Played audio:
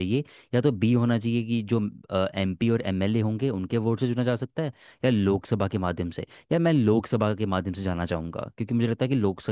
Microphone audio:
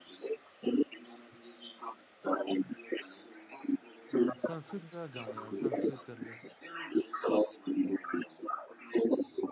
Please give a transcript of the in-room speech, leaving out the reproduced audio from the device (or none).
संस्कृत का जाऊंगा यार संस्कृत कर ले